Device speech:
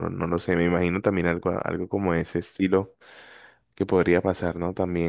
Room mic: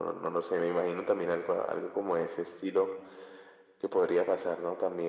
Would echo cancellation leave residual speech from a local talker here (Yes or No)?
No